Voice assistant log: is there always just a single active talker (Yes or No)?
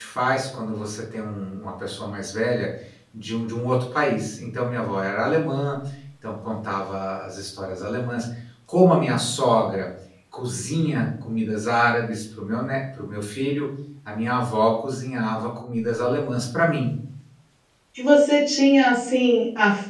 Yes